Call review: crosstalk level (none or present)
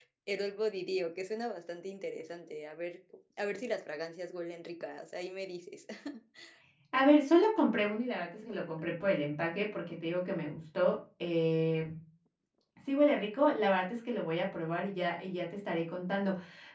none